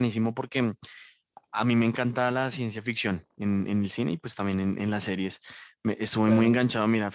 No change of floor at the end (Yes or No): Yes